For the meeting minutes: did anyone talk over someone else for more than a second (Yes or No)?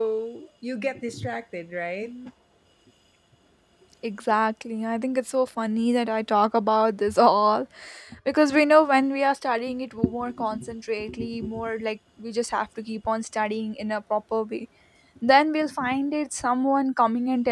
No